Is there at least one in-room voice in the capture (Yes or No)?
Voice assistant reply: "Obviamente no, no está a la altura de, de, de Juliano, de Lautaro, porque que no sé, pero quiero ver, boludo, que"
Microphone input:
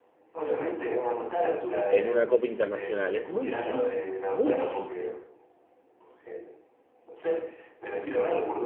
Yes